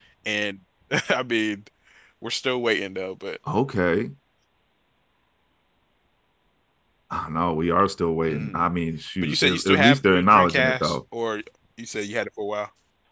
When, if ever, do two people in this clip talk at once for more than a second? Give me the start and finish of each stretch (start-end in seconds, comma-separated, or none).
9.2-11.0